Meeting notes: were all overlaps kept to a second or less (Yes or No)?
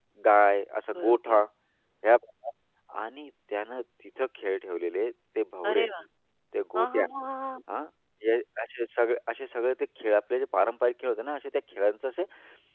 Yes